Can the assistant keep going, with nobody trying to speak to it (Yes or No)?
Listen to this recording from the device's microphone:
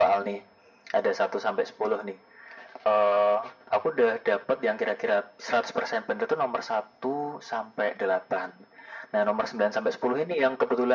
Yes